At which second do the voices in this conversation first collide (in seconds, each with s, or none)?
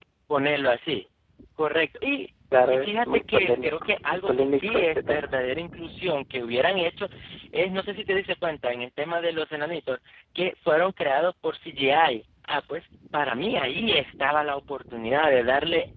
2.5 s